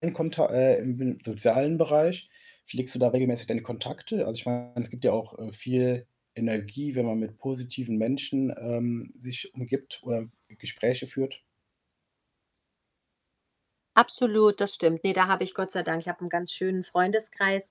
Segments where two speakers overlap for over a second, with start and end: none

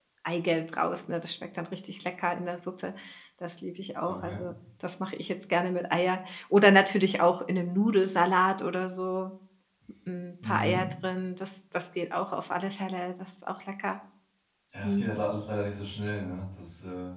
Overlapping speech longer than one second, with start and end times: none

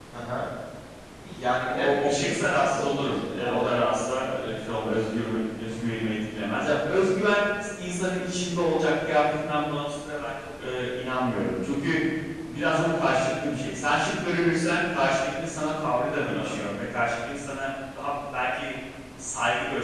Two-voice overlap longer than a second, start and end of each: 1.7-3.8

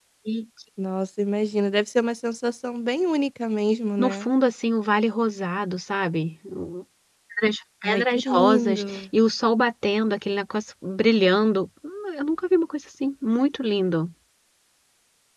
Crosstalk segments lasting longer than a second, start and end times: 7.8-9.0

